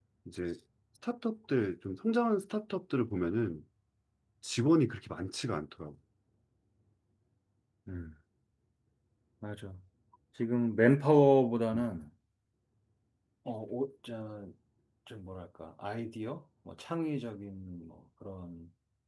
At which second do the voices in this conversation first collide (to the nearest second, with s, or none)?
none